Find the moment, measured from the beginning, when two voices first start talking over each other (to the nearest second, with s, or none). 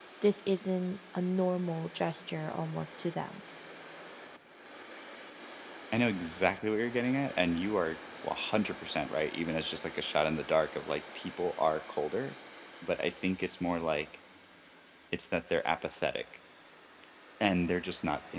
none